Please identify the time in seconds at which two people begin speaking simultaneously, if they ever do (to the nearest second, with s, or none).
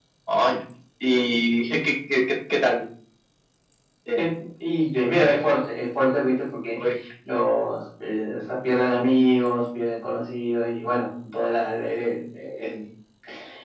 none